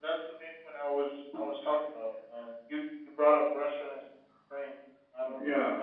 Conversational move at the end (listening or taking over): listening